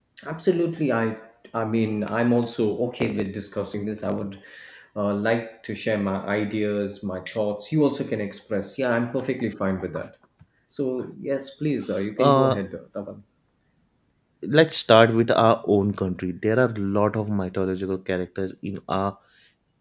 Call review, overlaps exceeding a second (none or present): none